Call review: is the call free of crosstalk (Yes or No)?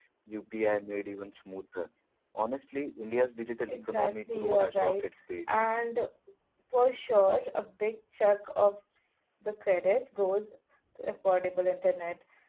No